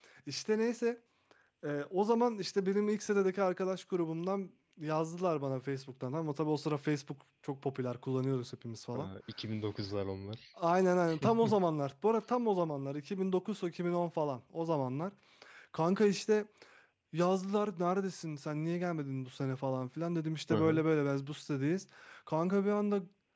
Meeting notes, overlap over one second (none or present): none